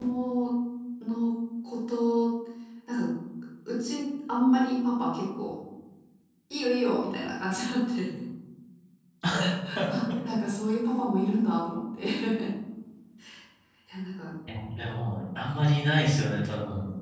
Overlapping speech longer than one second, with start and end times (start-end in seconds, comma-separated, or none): none